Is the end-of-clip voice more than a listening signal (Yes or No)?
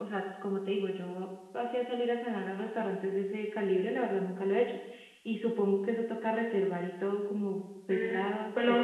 Yes